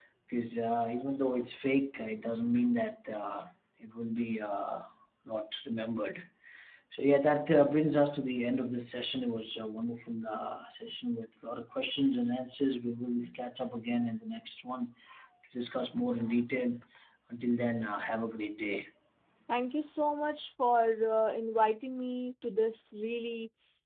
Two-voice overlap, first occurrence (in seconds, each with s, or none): none